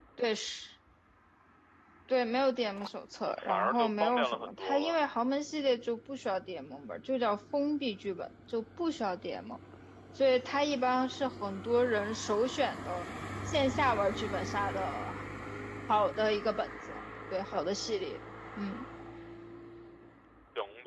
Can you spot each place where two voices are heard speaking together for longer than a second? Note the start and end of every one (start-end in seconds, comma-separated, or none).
3.2-5.0